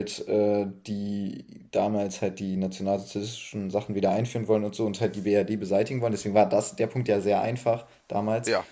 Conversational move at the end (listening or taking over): listening